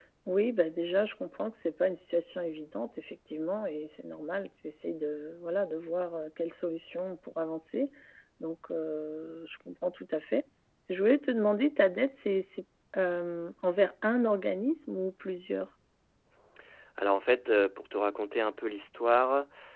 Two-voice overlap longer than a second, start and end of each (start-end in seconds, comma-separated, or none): none